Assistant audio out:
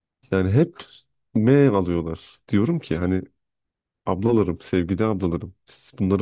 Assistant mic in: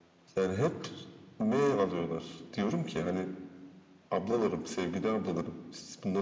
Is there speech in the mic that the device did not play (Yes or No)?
No